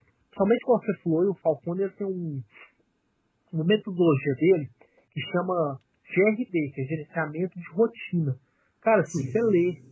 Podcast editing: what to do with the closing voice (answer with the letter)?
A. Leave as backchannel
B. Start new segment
A